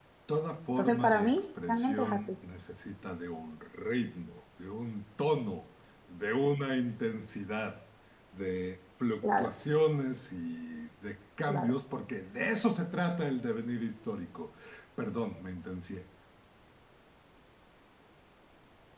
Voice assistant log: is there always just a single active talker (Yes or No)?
No